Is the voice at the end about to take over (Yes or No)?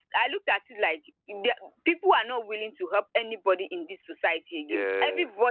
No